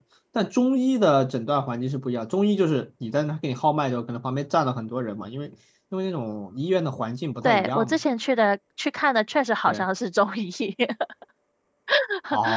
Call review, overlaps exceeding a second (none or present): none